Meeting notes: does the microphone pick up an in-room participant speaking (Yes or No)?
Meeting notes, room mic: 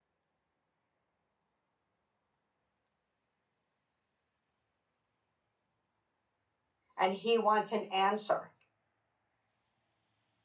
Yes